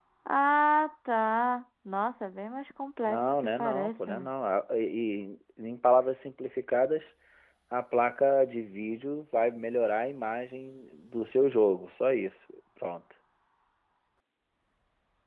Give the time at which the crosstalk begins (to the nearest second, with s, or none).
3 s